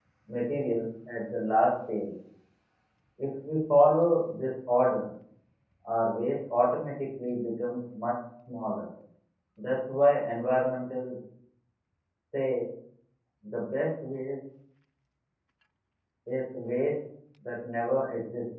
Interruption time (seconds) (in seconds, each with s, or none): none